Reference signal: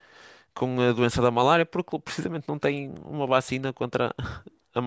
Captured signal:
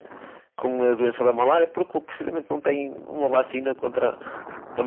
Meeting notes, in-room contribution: none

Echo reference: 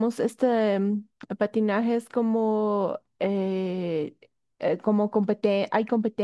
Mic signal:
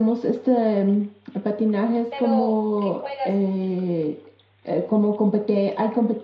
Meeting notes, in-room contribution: present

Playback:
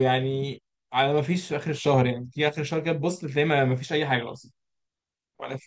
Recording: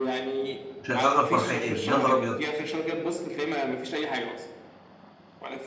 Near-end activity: present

